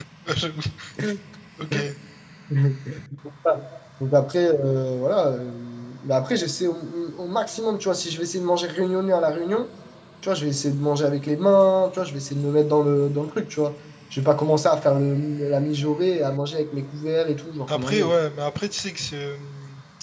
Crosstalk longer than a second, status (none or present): none